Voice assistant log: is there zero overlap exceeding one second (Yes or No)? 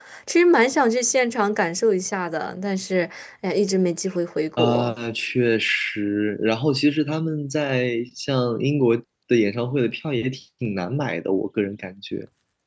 Yes